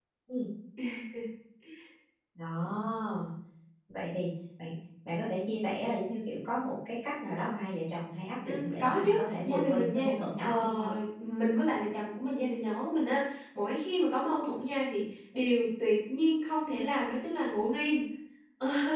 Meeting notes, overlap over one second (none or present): present